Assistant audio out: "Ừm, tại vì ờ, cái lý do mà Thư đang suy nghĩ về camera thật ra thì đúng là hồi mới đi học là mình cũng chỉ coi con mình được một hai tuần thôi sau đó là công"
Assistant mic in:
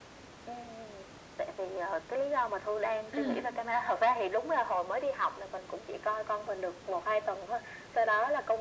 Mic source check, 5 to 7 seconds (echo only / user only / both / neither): echo only